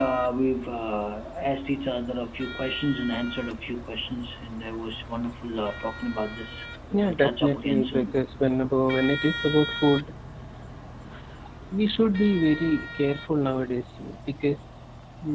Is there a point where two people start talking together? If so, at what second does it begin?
6.9 s

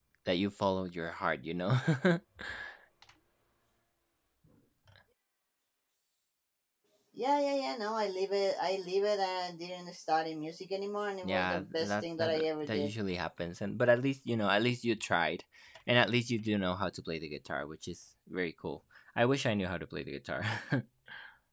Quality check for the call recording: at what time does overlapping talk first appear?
11.2 s

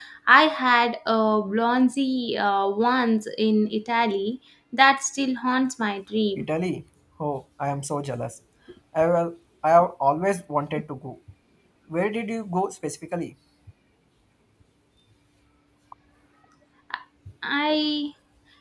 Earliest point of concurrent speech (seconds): none

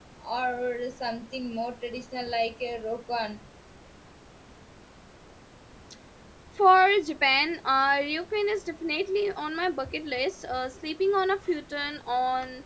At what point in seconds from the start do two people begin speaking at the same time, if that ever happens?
none

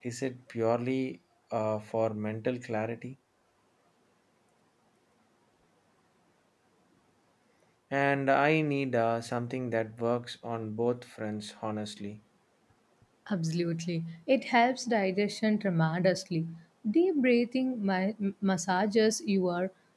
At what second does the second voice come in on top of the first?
none

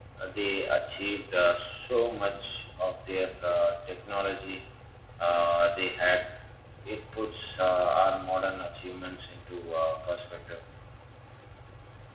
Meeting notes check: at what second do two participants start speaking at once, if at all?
none

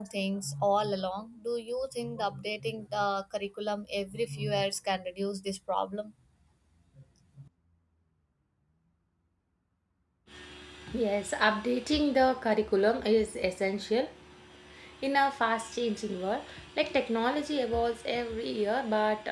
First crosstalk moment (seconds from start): none

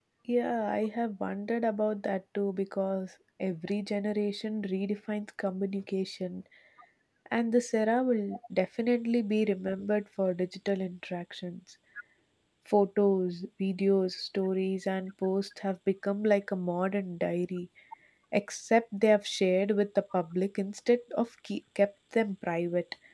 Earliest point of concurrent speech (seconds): none

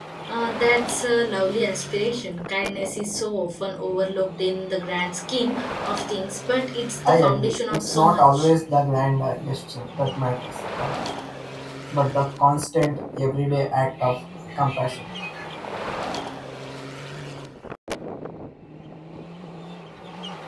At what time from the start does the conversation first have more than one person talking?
7.0 s

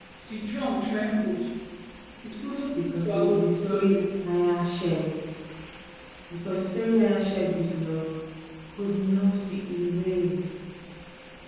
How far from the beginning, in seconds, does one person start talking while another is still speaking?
2.8 s

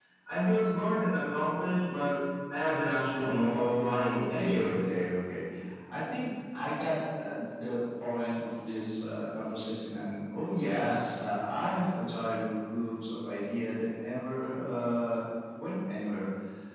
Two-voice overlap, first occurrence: 3.1 s

